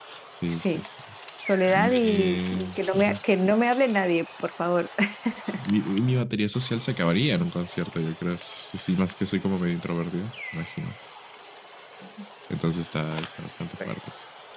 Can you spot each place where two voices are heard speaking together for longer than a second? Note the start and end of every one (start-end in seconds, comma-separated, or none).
1.7-3.2